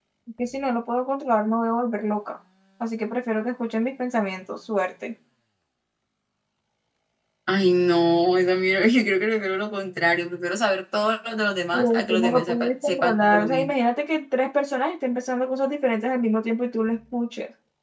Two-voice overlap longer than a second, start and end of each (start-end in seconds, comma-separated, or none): 11.7-13.7